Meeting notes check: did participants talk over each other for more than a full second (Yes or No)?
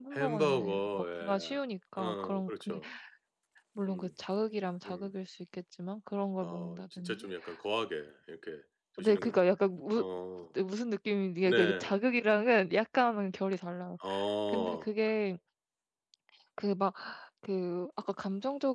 Yes